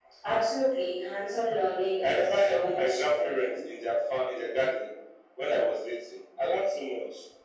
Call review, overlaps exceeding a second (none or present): present